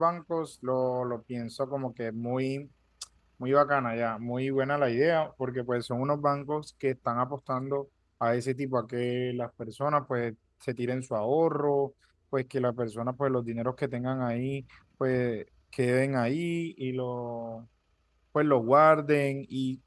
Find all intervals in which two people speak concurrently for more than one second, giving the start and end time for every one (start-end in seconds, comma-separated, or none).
none